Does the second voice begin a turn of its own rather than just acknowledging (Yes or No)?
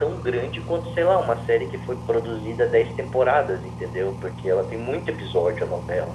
Yes